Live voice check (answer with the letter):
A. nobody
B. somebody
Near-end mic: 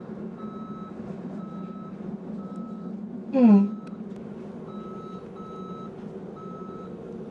B